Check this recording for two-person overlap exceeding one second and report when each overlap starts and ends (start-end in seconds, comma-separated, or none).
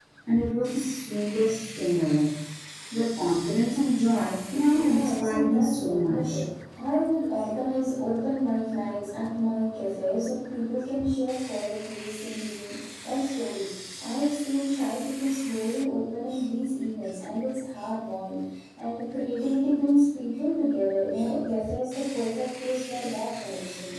4.7-6.4